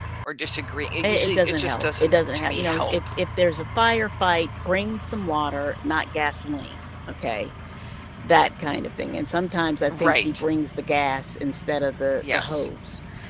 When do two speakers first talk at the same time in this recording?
1.0 s

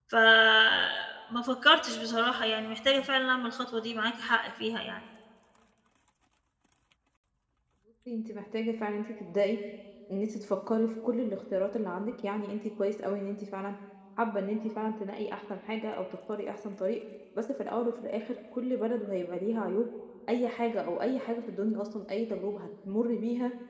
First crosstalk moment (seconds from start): none

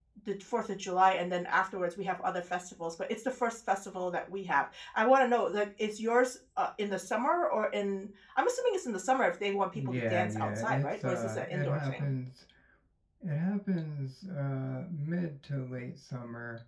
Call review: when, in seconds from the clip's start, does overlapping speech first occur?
9.7 s

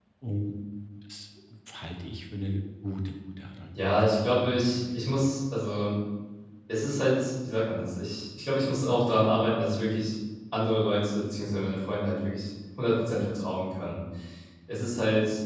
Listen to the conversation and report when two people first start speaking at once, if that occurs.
3.7 s

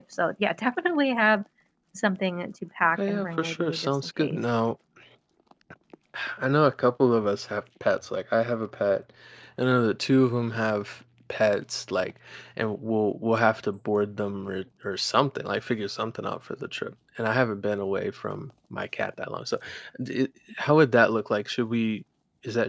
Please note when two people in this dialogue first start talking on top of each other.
2.9 s

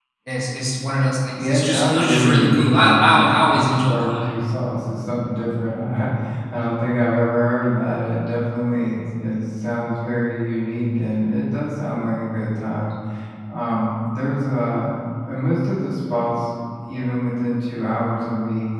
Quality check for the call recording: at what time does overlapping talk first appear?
1.4 s

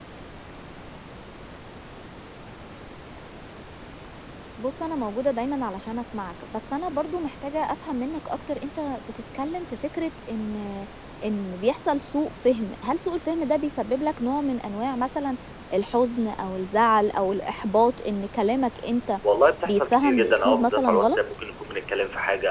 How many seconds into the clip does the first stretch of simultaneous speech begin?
19.6 s

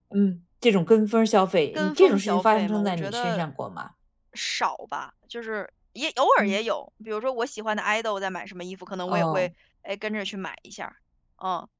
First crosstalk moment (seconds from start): 1.7 s

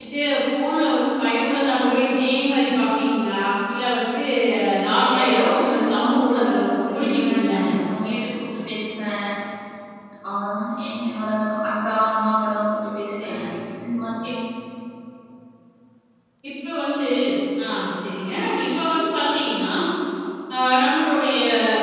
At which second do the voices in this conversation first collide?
5.2 s

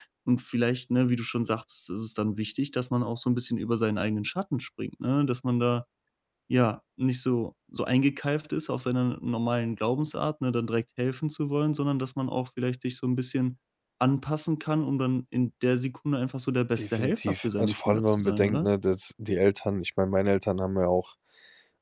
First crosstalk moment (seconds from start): 16.8 s

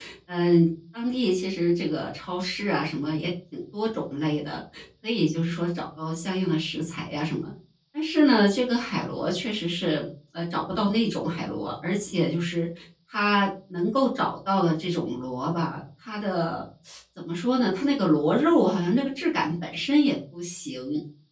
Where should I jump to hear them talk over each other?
none

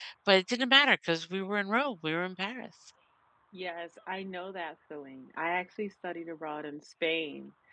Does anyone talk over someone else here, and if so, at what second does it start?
none

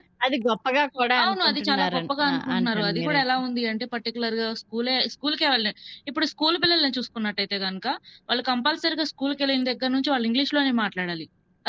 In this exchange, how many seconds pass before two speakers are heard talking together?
1.2 s

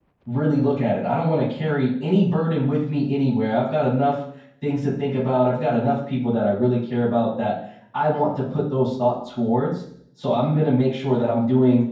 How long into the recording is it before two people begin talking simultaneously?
none

